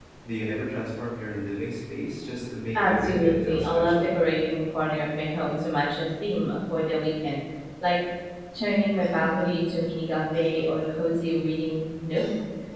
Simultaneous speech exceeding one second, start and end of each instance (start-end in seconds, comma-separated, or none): 2.7-4.2